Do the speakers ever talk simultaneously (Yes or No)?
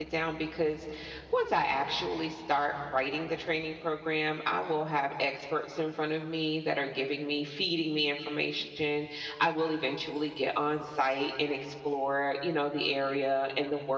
No